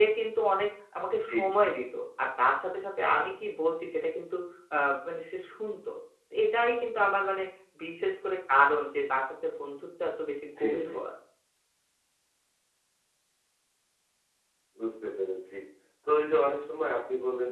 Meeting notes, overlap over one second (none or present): none